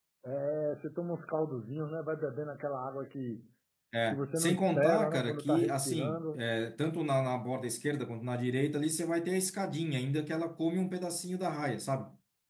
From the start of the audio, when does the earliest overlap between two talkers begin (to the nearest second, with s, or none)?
4 s